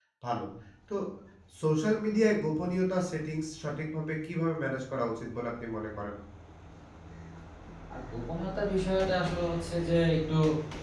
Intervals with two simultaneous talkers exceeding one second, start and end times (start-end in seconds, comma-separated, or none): none